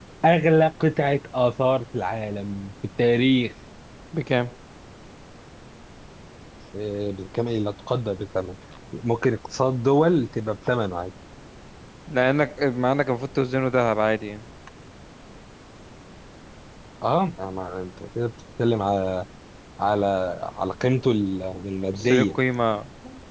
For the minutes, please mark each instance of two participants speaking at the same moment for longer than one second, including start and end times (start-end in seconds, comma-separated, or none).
none